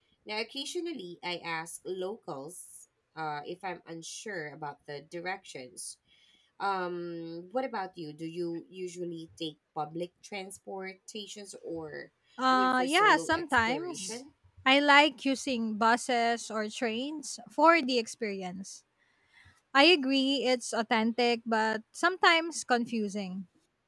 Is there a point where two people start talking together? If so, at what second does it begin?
13 s

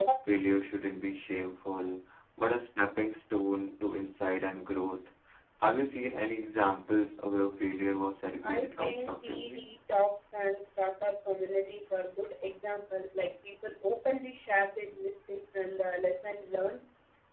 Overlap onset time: 8 s

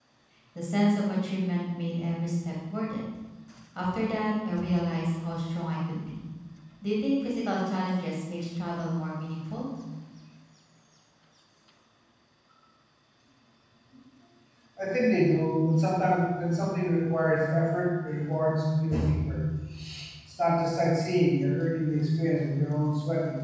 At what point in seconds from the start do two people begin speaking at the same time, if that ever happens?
none

